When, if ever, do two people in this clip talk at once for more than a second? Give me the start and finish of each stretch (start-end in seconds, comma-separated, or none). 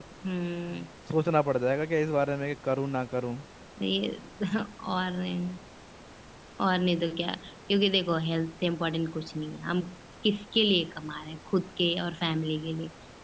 none